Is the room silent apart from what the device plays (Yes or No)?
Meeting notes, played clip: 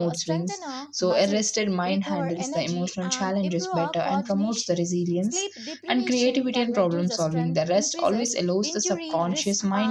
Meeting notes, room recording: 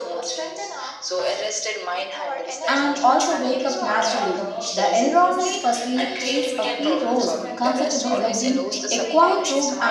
No